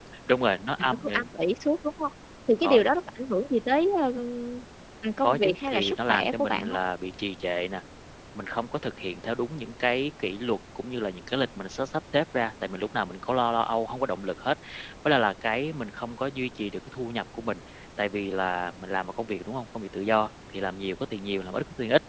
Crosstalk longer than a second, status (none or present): present